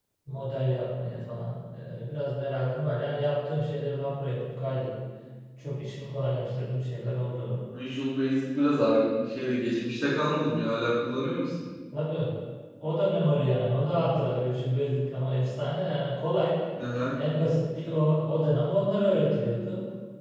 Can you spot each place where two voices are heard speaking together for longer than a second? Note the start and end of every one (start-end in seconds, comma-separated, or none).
none